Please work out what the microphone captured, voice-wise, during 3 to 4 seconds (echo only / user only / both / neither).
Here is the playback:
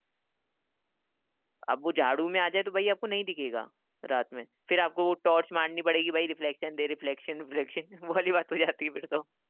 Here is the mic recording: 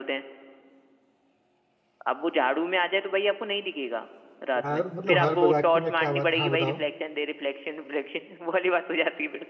echo only